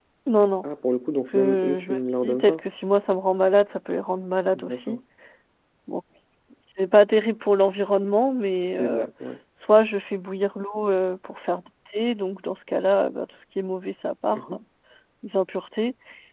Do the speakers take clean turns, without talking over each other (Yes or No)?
No